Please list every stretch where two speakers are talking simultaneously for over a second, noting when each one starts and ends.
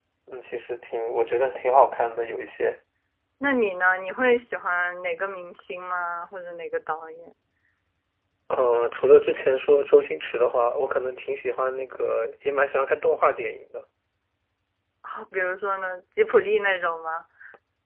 none

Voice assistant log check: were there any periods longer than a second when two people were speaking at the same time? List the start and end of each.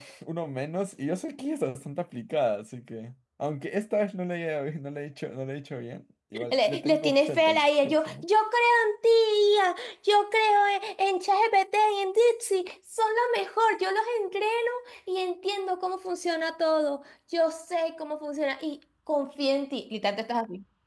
6.3-8.2

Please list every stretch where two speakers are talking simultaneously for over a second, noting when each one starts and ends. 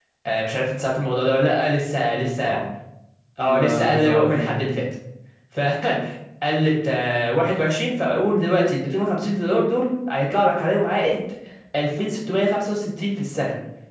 3.4-4.6

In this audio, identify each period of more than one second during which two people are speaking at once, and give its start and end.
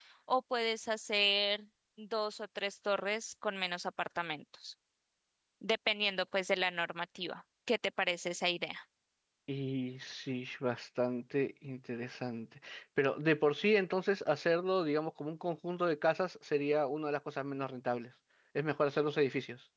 none

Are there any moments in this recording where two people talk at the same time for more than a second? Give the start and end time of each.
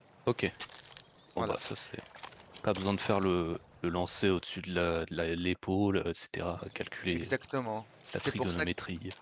none

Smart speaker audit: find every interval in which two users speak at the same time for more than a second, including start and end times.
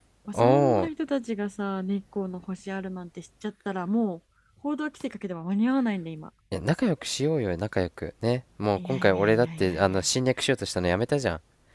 8.8-10.1

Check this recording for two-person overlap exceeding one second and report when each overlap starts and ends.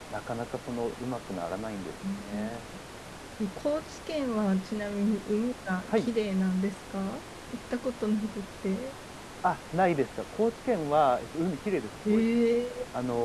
none

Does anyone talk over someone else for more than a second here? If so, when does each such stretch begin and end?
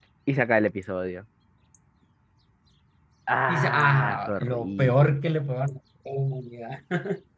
3.5-5.2

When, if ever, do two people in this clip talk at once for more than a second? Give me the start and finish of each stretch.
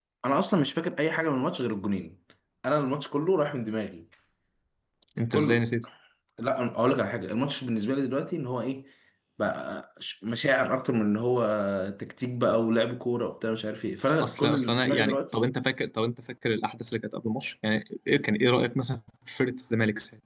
14.2-15.5

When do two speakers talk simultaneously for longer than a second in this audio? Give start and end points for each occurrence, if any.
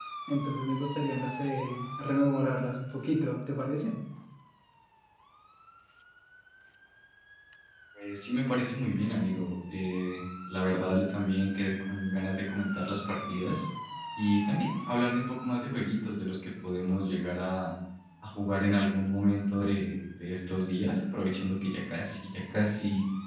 none

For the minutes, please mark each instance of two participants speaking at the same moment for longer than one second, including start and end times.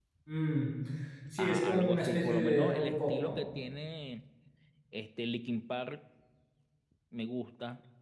1.4-3.4

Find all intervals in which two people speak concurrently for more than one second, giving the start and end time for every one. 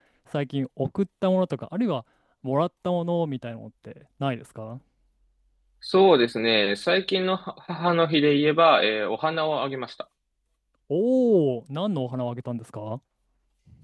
none

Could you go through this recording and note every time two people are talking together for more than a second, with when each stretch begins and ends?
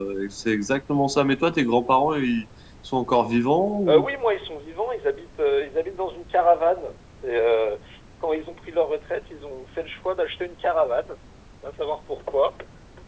none

